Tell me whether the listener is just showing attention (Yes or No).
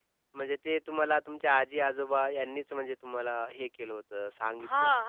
No